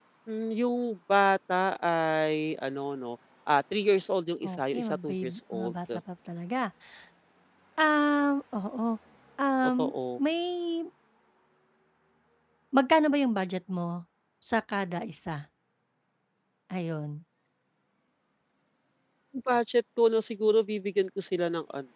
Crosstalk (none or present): present